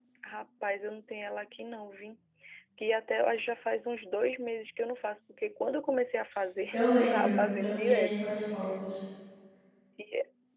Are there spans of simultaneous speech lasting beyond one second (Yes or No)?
Yes